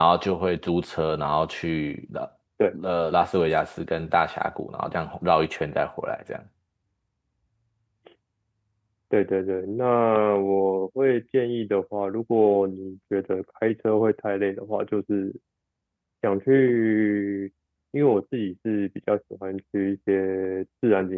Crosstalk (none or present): none